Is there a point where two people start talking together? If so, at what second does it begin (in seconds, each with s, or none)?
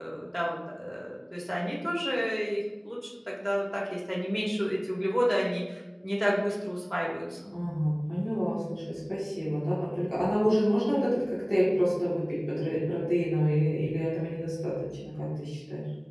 none